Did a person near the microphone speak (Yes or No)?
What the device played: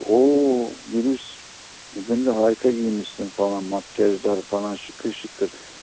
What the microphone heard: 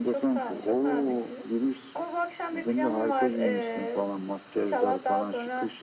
Yes